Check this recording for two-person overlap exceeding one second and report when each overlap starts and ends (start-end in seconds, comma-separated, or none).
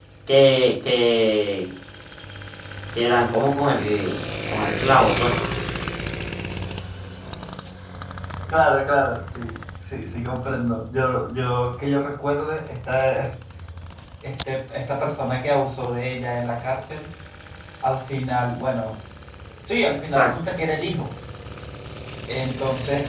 none